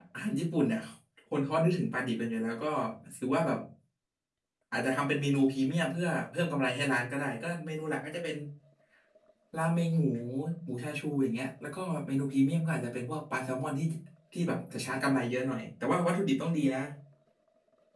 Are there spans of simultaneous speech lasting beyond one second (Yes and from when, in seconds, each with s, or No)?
No